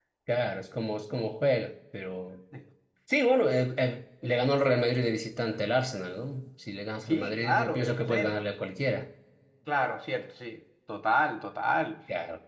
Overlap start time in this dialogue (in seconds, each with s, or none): 7.1 s